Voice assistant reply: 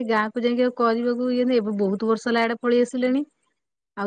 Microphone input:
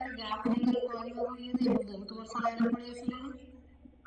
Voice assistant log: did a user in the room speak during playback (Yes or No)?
No